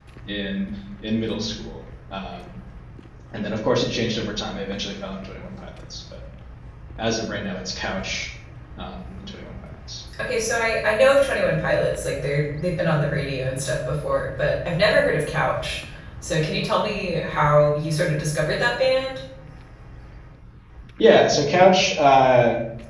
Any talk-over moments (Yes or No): No